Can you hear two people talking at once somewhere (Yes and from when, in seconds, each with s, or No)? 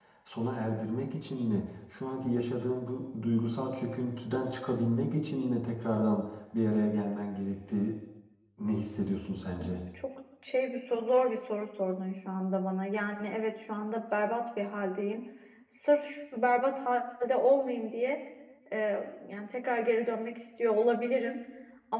No